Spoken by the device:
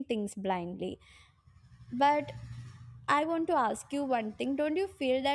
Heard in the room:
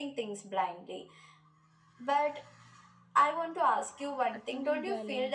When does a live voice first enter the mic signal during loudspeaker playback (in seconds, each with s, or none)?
4.3 s